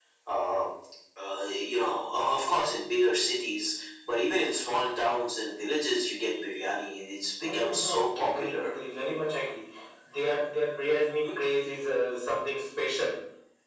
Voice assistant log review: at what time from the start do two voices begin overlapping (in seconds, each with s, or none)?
7.4 s